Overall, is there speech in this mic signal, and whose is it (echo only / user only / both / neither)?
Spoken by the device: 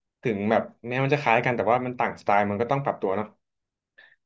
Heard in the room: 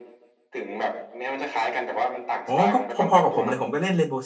both